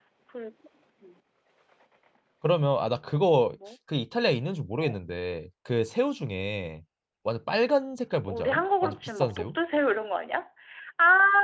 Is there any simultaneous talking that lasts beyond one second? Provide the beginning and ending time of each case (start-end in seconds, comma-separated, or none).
8.3-9.6